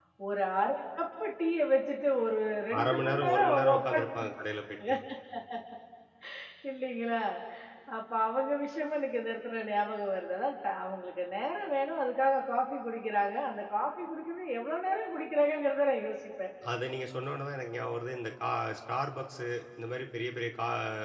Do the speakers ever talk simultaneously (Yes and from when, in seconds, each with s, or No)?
Yes, from 2.7 s